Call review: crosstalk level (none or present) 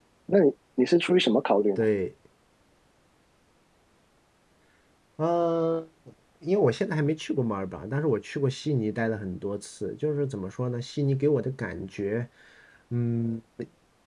none